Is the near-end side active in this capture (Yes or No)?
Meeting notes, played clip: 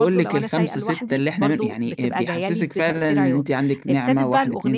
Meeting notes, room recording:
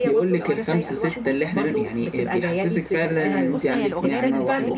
Yes